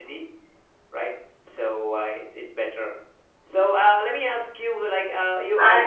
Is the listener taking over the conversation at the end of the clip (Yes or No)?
No